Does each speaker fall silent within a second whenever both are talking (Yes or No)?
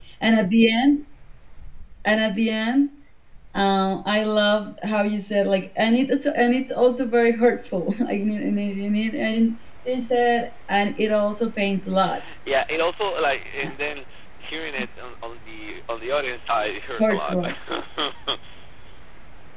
Yes